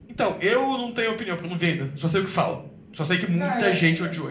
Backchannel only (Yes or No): No